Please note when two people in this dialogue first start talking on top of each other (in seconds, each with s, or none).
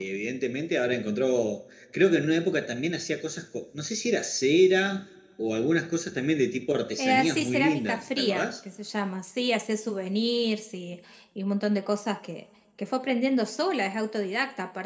7.0 s